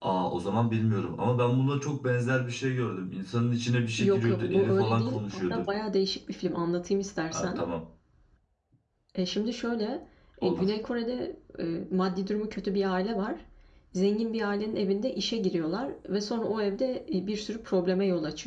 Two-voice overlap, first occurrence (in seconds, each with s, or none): 4.0 s